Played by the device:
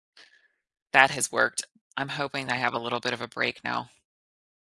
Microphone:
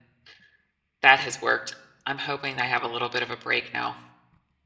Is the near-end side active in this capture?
No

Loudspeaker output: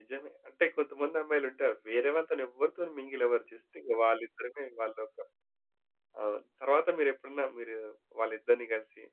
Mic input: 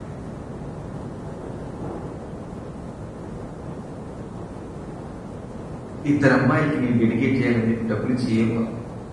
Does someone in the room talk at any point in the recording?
Yes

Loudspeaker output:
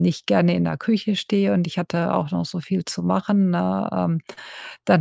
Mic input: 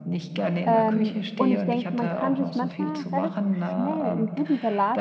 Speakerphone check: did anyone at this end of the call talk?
Yes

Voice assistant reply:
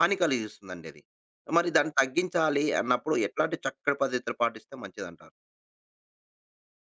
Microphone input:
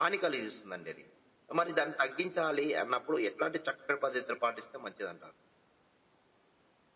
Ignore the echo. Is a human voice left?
No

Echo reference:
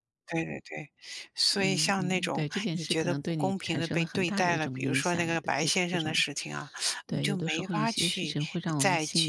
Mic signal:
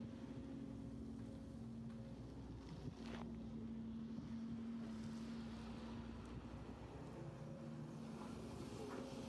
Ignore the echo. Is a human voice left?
No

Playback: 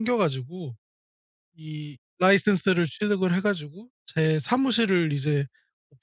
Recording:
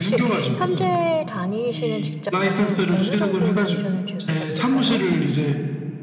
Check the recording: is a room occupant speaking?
Yes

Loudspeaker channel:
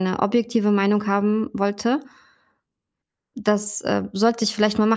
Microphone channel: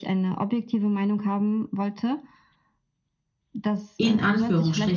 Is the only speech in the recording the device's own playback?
No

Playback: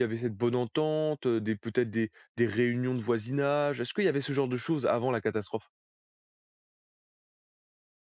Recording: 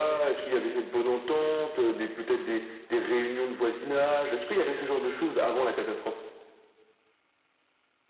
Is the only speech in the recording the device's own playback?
Yes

